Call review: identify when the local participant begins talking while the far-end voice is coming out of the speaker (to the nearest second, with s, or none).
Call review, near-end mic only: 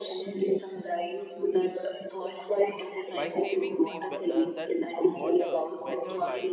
3 s